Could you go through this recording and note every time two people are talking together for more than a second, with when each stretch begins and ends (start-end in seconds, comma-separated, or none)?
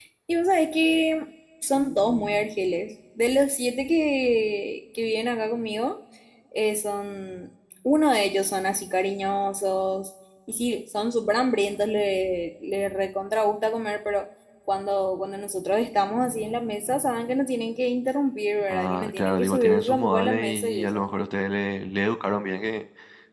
18.7-21.0